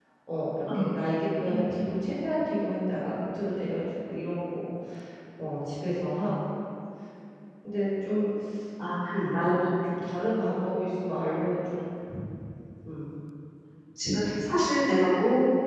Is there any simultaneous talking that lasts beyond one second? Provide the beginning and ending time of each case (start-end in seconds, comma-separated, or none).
none